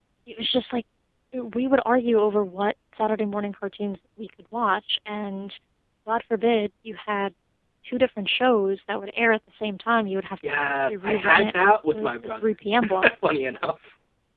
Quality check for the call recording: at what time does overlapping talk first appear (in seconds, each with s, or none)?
10.7 s